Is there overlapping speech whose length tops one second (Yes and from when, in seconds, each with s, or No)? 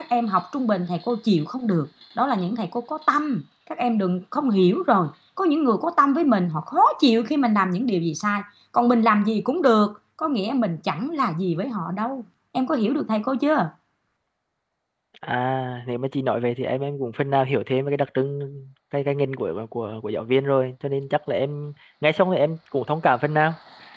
No